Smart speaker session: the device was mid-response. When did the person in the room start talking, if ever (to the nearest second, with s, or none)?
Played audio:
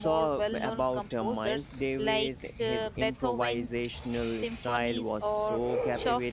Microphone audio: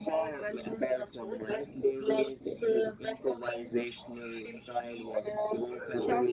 none